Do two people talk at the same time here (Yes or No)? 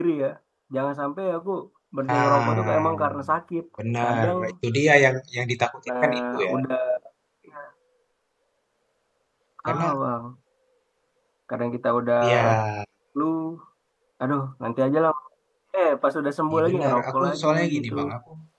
Yes